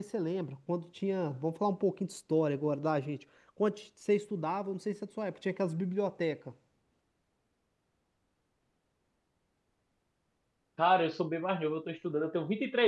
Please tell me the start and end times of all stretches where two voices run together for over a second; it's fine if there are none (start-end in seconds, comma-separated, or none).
none